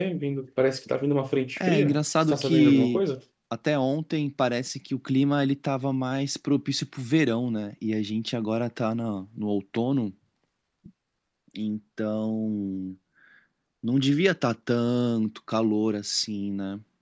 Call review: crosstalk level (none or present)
present